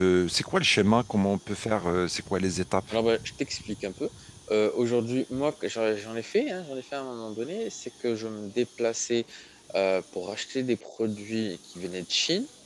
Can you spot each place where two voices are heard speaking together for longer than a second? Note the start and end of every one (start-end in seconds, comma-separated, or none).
none